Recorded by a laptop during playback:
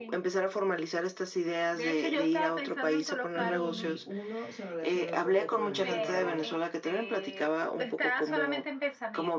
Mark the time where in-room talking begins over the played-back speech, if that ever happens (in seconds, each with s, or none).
3.3 s